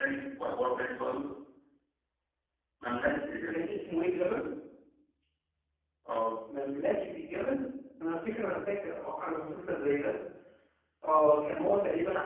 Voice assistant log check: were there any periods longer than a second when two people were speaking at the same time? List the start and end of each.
none

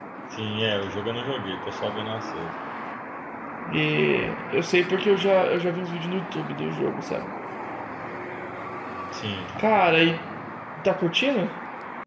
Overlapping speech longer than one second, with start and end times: none

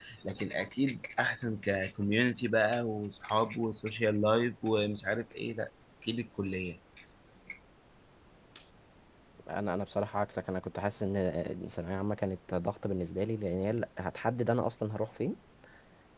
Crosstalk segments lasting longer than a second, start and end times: none

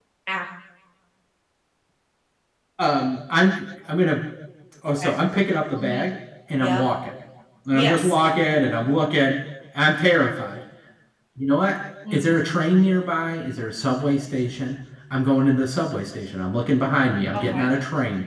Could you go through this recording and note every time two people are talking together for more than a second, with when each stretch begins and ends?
none

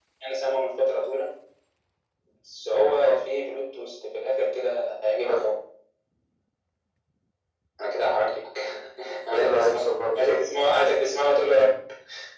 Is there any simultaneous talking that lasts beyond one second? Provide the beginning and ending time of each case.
none

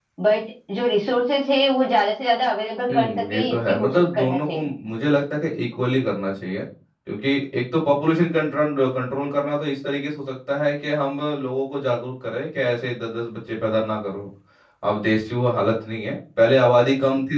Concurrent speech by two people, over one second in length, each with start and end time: 2.9-4.7

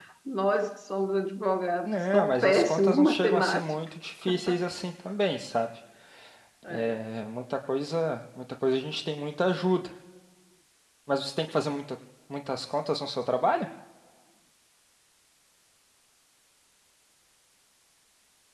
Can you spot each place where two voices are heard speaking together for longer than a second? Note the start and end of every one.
1.9-3.6

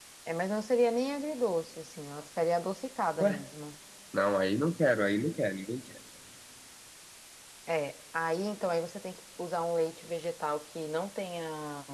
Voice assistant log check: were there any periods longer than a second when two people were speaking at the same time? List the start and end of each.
none

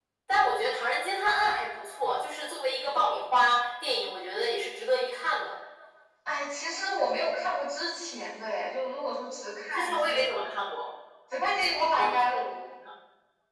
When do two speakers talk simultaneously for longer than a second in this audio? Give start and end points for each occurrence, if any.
none

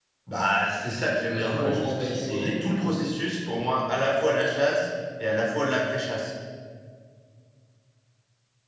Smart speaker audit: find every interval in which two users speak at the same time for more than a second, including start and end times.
1.2-2.7

